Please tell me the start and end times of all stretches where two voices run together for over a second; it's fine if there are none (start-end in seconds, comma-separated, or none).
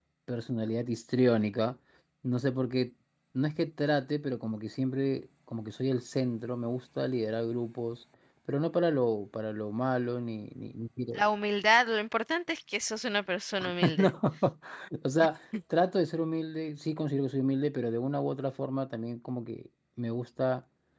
none